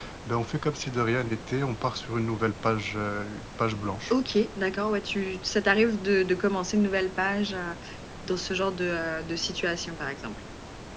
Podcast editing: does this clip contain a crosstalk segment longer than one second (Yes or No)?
No